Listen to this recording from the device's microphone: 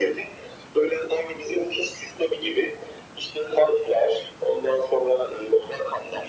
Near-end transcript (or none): none